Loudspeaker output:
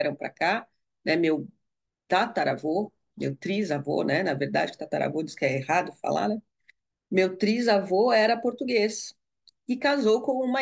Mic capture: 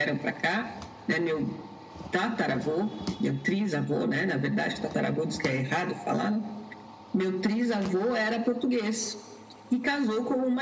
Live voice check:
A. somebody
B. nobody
B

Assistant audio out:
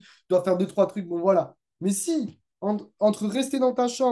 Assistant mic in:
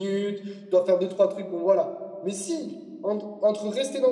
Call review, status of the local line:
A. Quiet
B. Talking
A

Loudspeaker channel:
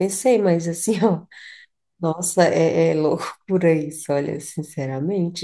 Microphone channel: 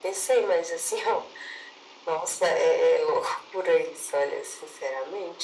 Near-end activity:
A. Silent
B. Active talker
A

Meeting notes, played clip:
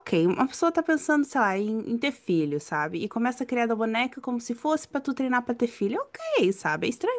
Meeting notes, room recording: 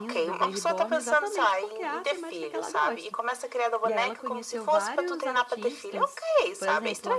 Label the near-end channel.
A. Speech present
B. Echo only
A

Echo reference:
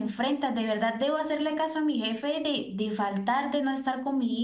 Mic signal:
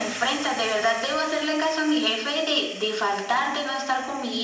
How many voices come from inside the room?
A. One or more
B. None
B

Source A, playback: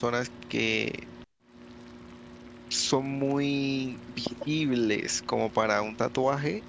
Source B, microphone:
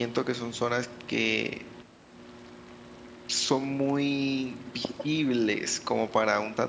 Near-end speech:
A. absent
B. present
A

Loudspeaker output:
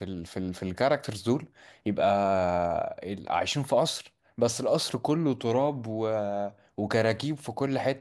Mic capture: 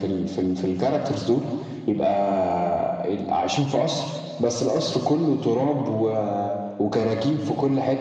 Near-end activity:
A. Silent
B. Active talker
A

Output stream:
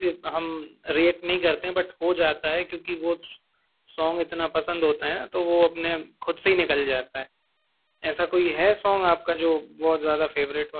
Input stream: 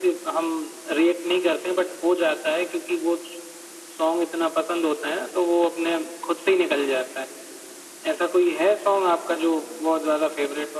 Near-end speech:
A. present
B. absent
B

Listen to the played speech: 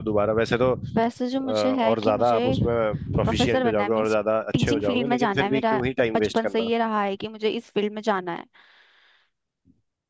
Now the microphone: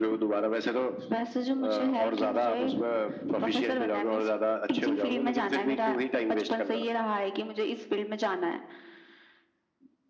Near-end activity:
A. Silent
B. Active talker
A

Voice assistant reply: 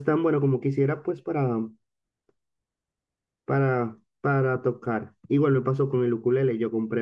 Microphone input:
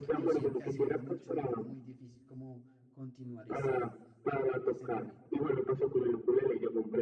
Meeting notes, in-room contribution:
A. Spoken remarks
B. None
A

